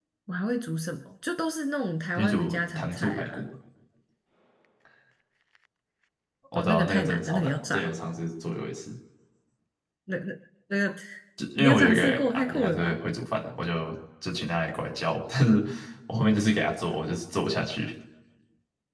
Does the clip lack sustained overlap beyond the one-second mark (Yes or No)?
No